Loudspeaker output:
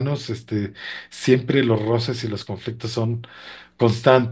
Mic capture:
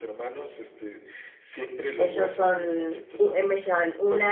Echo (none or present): present